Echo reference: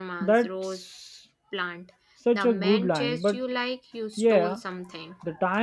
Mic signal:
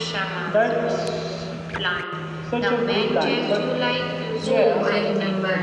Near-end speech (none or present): present